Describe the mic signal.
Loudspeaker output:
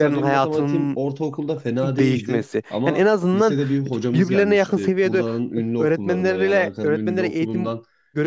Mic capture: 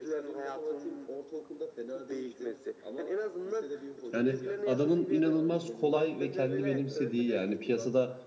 both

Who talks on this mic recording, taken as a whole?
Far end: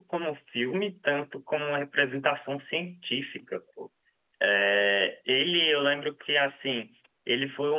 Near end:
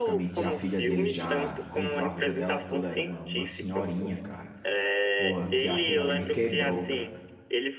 both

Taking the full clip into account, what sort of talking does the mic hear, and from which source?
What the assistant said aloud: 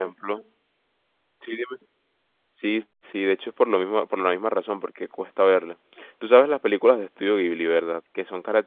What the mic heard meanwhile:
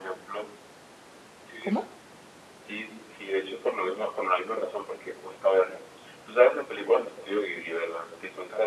both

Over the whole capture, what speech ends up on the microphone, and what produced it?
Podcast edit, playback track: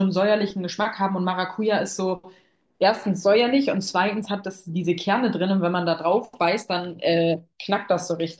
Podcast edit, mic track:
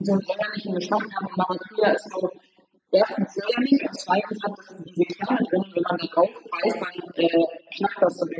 echo only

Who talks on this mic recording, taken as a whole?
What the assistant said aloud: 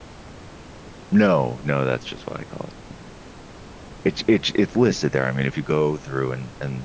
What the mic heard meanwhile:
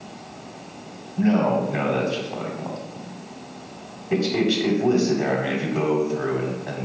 echo only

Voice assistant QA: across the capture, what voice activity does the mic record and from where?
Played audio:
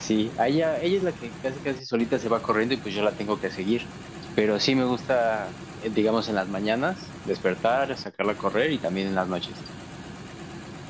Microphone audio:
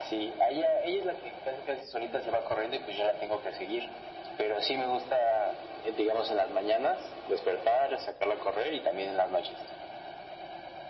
echo only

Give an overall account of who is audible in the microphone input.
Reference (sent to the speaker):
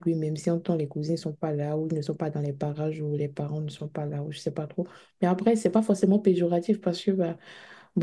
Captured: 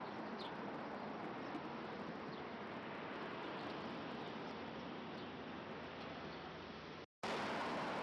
neither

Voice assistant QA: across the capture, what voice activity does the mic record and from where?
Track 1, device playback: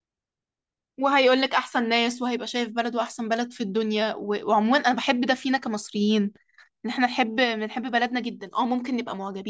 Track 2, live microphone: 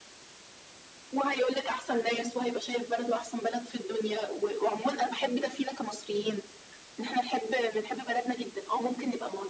echo only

